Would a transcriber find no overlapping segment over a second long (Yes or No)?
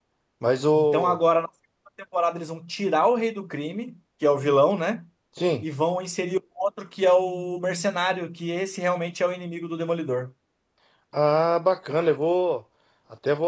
Yes